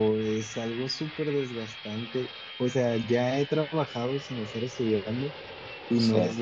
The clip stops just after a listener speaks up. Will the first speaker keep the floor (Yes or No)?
Yes